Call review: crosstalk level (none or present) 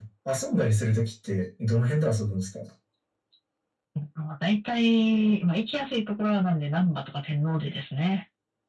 none